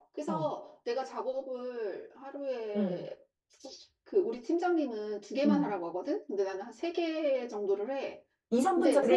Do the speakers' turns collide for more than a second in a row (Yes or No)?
No